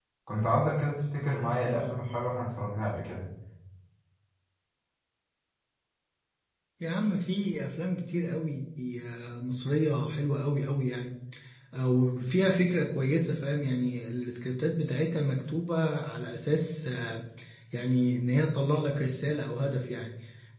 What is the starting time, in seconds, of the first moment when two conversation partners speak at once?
none

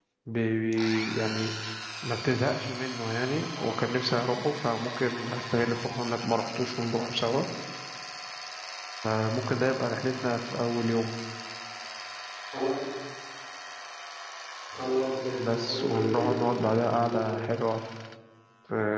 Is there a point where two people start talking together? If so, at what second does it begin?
15.5 s

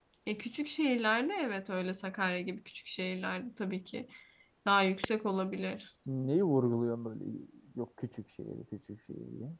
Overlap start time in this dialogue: none

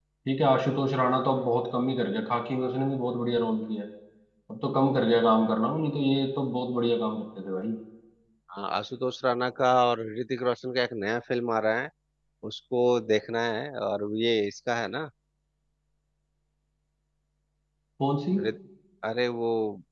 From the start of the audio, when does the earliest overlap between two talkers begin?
none

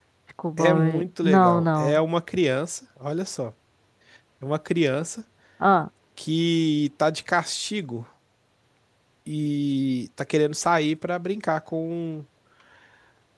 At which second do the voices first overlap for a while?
0.6 s

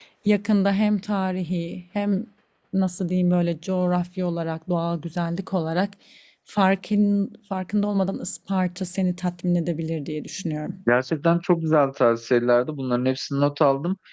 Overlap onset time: none

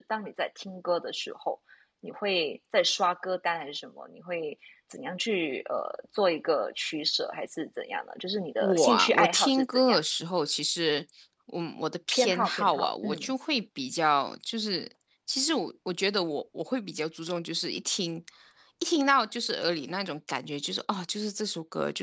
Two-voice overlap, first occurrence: 8.6 s

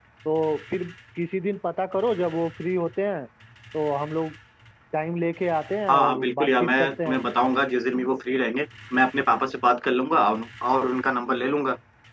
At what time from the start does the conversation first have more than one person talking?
5.9 s

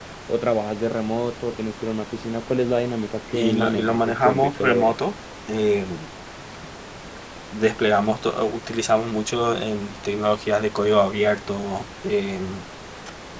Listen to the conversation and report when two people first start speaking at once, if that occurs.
3.3 s

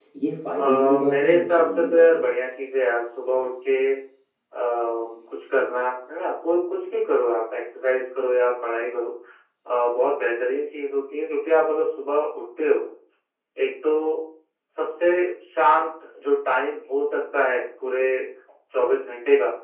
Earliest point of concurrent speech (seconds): 0.6 s

